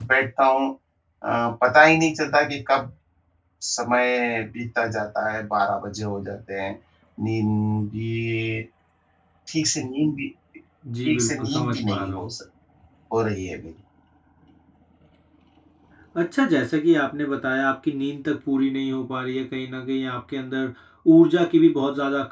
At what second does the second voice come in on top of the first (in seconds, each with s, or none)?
11.0 s